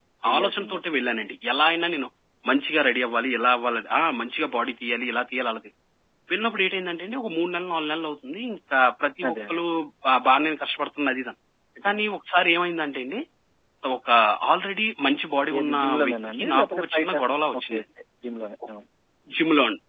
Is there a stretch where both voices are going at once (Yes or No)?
Yes